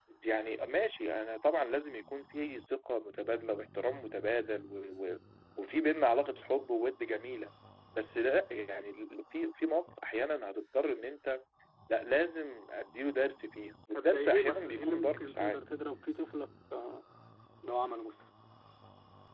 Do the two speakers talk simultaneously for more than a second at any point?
Yes, from 13.9 s

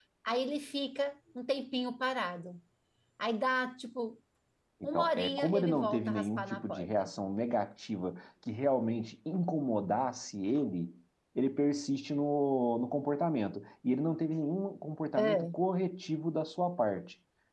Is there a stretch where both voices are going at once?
Yes, from 4.9 s

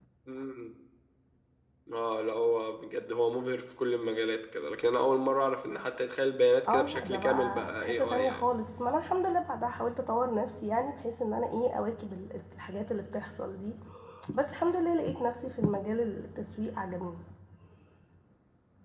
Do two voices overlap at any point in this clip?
Yes, from 6.7 s

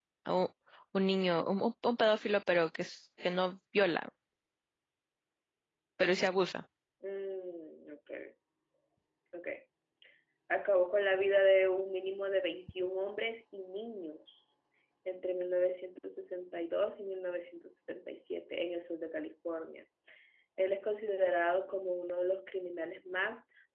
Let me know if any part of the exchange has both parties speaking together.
No

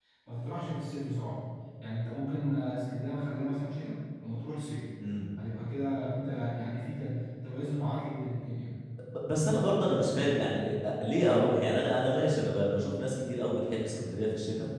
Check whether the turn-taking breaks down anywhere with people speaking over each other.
No

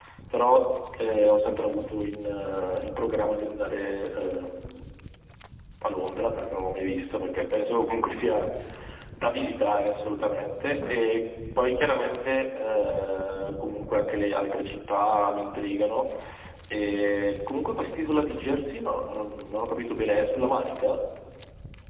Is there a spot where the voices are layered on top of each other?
No

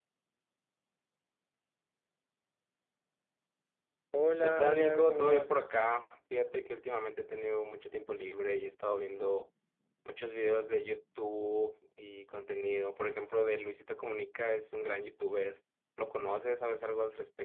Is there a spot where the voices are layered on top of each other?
Yes, from 4.4 s

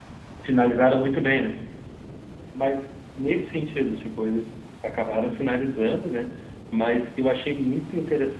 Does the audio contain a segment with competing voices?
No

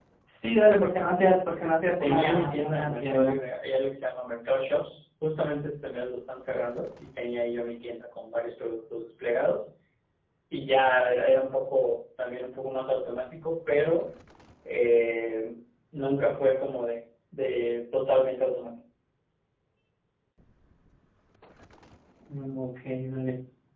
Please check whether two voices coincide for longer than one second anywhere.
Yes, from 2.0 s

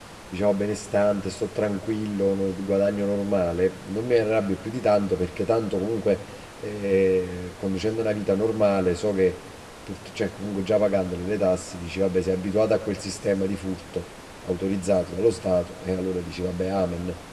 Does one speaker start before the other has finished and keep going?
No

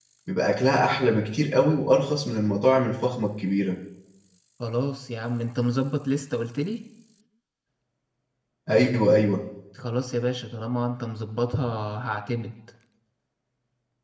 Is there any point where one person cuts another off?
No

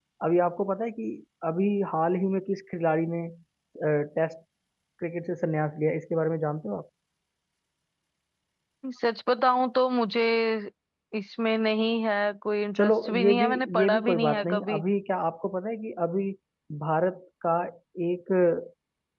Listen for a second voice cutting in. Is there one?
Yes, from 12.8 s

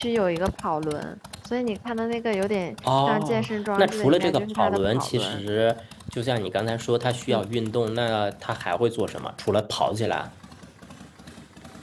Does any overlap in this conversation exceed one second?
Yes, from 2.8 s

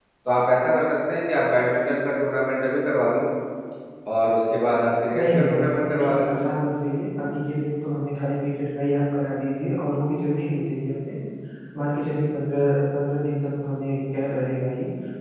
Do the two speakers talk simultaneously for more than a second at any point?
Yes, from 5.1 s

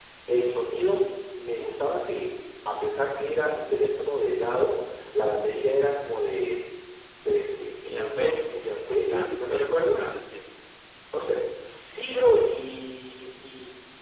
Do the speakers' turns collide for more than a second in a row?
Yes, from 7.9 s

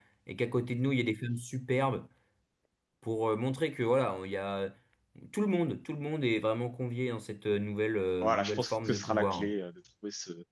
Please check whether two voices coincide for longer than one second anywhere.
Yes, from 8.2 s

